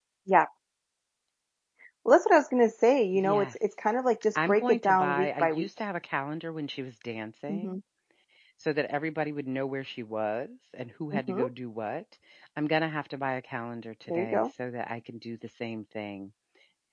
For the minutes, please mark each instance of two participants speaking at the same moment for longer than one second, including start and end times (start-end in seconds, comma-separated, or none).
4.3-5.7